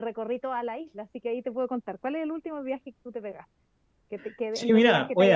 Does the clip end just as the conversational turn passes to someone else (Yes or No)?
Yes